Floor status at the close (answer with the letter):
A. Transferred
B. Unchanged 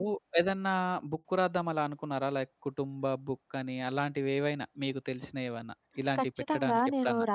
A